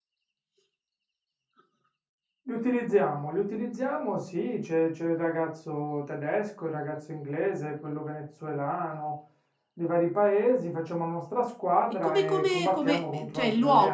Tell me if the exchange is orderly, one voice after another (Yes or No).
No